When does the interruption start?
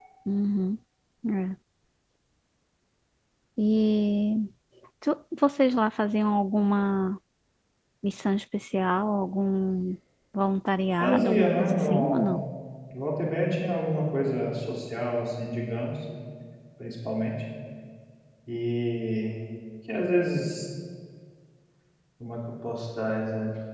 11.0 s

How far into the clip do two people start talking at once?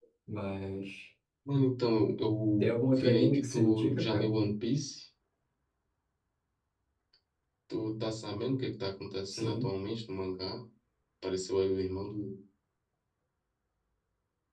2.6 s

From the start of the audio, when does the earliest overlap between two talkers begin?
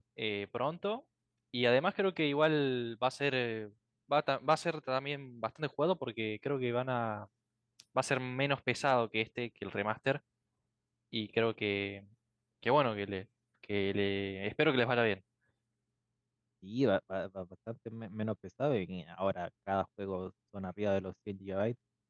none

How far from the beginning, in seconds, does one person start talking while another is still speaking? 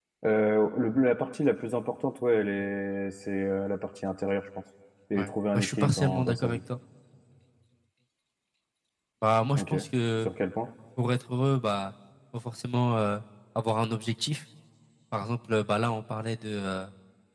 5.2 s

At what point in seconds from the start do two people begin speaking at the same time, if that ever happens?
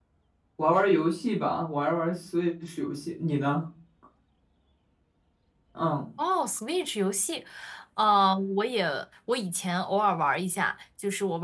none

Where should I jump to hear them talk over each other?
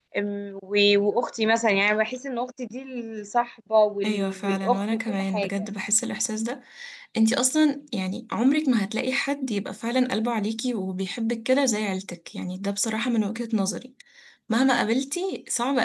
4.0 s

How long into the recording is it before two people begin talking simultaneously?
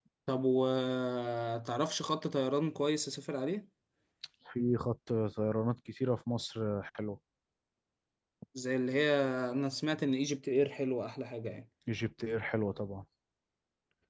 none

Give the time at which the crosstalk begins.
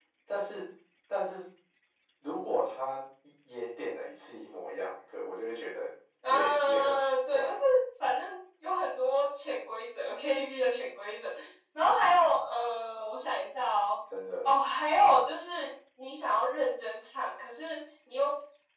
6.2 s

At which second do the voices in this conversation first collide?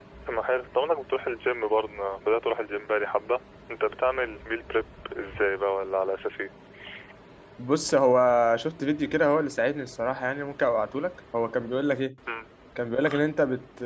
none

